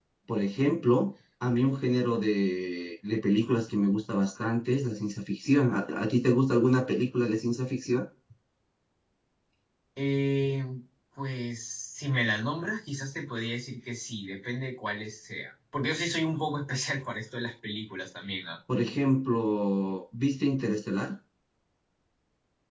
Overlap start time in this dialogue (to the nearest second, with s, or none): none